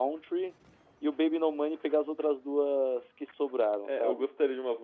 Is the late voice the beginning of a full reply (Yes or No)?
Yes